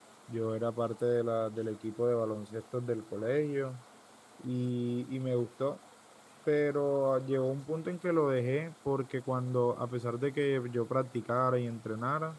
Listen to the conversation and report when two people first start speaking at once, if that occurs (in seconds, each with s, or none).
none